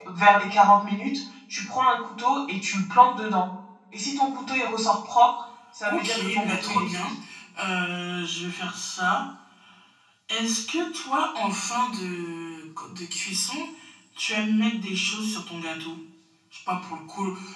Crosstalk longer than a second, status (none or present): present